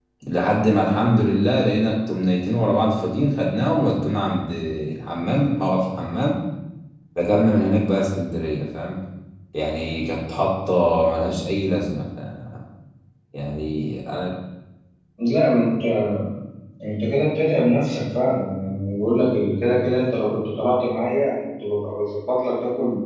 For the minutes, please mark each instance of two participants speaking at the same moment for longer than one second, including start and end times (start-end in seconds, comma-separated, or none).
none